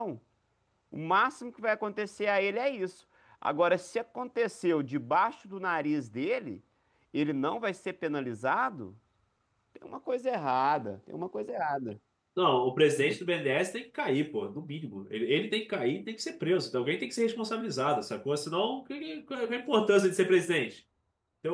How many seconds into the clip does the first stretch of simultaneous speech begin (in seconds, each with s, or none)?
none